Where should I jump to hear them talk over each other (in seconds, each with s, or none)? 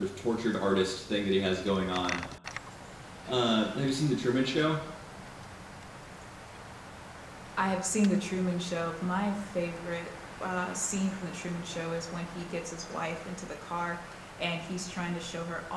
none